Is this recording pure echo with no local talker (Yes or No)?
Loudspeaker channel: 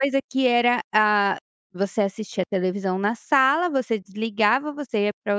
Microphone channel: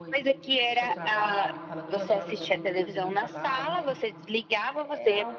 No